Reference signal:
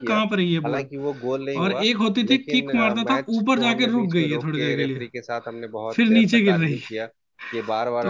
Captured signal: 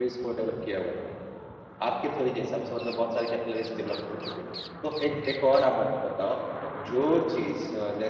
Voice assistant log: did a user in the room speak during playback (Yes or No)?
Yes